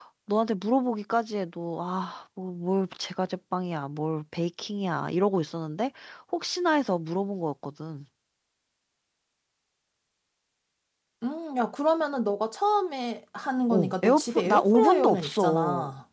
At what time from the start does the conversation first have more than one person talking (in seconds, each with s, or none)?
13.7 s